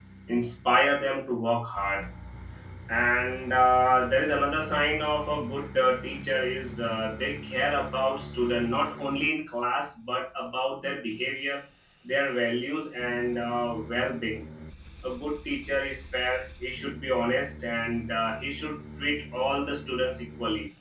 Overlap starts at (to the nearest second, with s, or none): none